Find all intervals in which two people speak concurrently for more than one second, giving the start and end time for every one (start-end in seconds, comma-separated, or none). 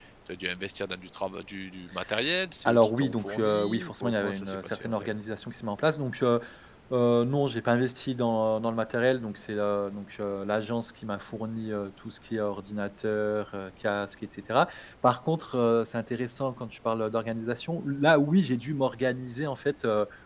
2.6-4.9